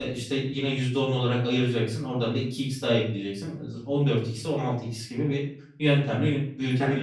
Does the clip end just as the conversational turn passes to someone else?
Yes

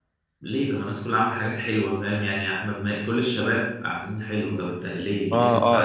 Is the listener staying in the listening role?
No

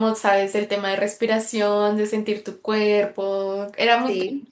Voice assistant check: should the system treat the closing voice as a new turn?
No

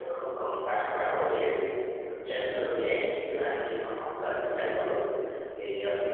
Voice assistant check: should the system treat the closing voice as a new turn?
No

